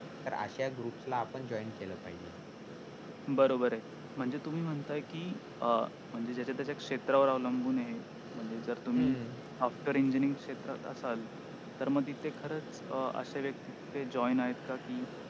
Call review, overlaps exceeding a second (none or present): none